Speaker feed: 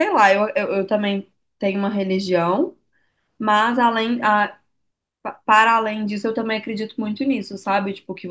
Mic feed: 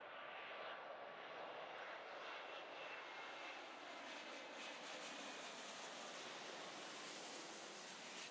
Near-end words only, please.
none

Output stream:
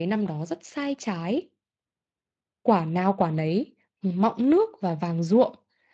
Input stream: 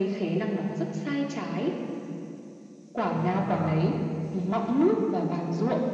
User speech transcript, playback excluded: Không biết là

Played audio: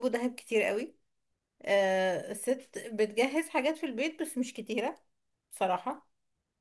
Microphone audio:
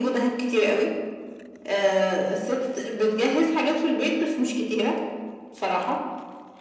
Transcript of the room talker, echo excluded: none

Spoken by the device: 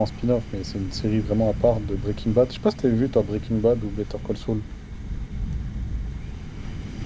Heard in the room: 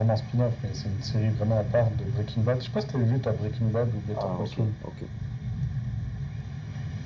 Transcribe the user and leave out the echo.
Ah, ok, ok.

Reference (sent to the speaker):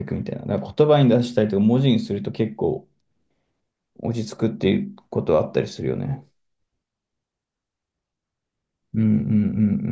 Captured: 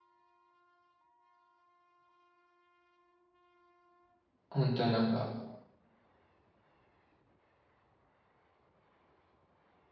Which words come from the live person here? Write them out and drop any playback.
本当になんか、

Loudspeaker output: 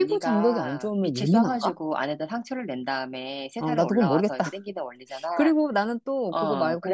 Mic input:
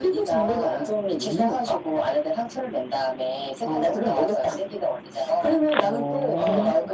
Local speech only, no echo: 오.

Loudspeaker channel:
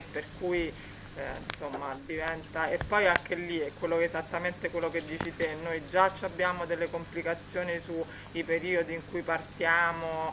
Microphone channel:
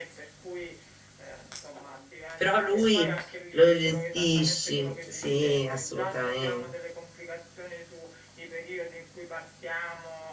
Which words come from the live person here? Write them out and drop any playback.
però lui lo gestisci, sì, assolutamente.

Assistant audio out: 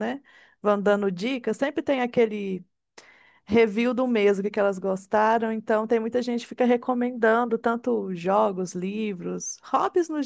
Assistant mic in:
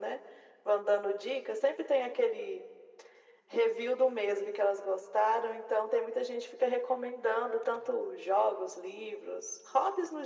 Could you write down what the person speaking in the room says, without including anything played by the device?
none

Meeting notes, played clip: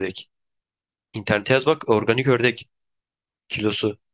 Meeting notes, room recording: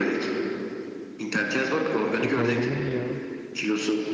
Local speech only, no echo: O kadar olur mu ya?

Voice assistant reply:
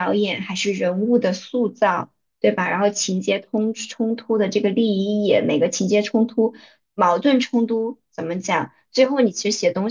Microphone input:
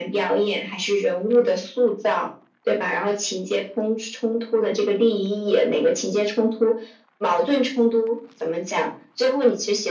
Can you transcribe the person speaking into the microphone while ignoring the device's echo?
none

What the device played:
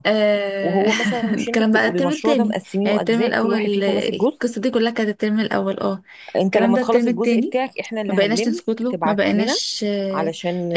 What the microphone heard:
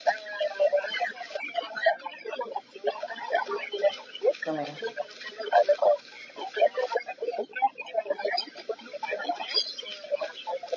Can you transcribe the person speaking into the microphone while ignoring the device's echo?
تمام

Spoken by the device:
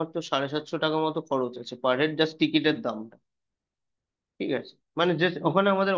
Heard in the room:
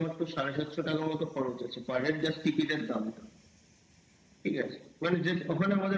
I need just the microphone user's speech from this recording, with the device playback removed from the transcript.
none

